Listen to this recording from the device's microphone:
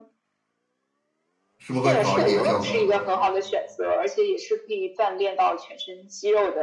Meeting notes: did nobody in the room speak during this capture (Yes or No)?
No